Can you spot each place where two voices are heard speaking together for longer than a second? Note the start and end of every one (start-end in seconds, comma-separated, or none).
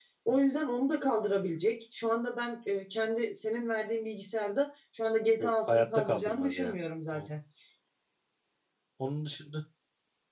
5.4-6.7